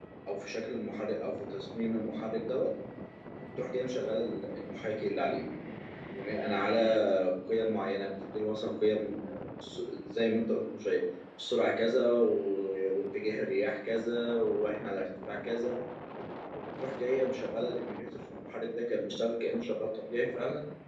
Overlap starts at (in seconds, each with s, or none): none